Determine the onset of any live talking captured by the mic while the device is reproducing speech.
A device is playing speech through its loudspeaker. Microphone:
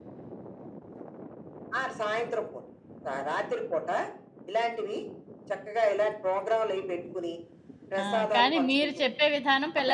8.0 s

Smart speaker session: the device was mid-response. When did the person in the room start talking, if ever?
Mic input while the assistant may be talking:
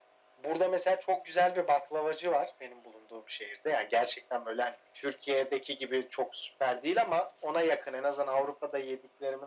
none

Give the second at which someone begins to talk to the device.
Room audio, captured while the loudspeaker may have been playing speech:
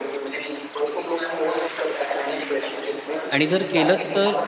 3.3 s

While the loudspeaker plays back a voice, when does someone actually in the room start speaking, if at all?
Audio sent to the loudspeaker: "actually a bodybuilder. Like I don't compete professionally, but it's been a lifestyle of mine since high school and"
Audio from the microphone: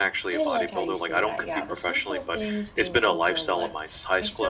0.3 s

